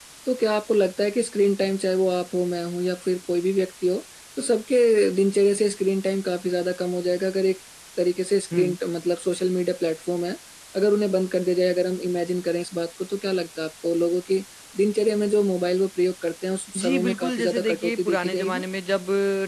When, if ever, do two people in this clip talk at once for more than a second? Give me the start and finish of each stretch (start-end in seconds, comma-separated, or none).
16.8-18.6